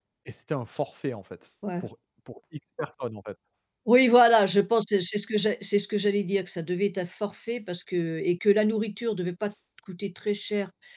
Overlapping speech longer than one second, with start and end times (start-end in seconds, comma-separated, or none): none